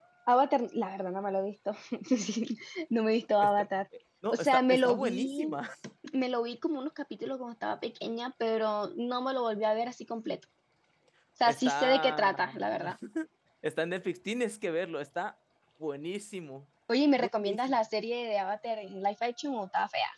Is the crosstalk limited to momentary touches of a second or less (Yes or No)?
No